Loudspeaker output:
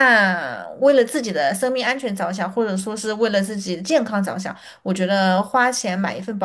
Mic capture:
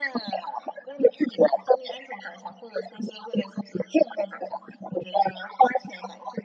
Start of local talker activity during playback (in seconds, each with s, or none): none